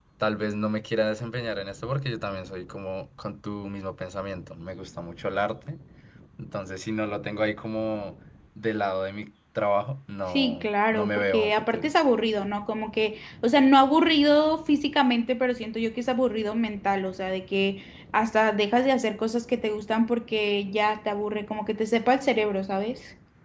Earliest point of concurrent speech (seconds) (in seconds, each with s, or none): 10.3 s